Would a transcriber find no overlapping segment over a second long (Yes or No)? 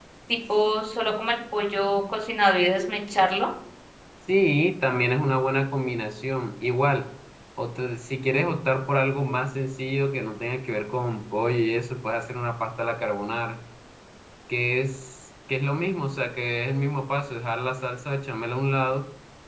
Yes